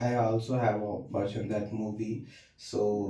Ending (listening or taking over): listening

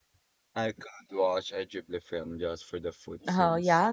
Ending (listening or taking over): taking over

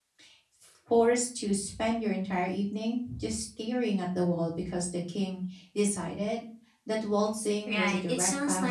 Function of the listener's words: taking over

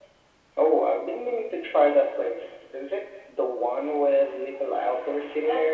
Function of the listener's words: taking over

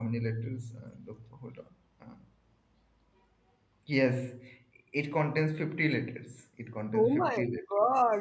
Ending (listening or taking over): taking over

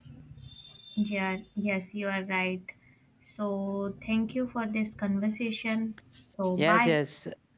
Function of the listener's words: taking over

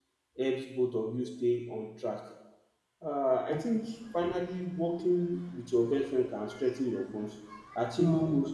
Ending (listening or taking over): listening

